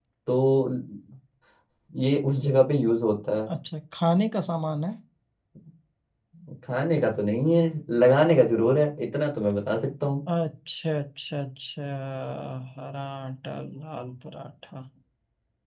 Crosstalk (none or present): none